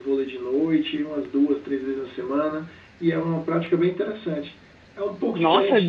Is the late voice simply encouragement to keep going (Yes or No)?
No